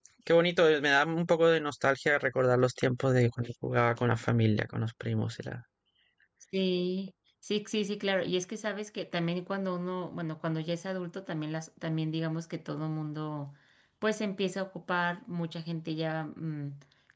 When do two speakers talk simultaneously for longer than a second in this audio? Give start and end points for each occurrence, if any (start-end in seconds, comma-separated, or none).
none